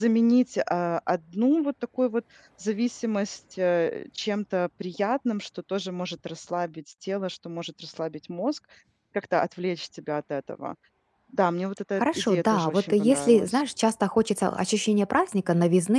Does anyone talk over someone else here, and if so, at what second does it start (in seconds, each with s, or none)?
12.0 s